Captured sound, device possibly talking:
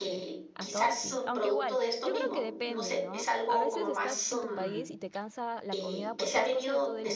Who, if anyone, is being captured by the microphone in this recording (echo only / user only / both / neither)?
both